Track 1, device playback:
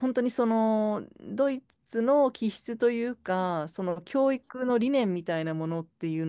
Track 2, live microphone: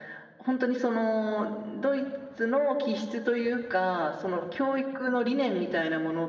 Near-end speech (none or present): none